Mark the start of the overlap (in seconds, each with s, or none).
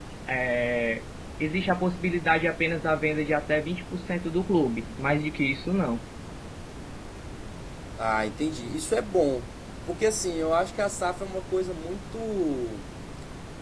none